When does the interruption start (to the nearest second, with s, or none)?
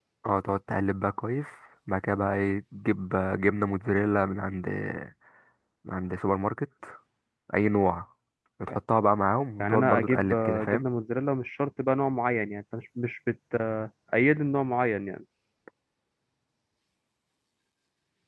10 s